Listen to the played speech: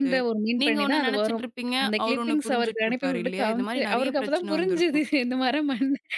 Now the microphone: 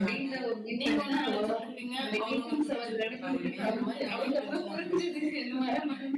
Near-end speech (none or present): none